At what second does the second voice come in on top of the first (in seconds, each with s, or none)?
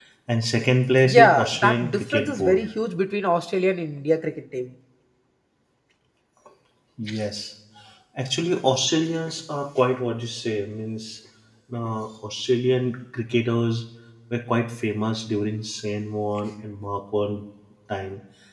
1.0 s